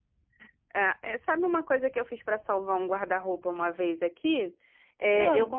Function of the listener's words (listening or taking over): listening